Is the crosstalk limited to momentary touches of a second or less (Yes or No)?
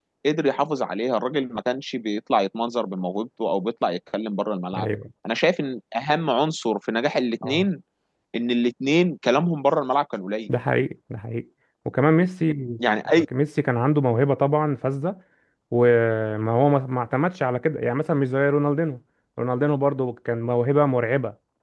Yes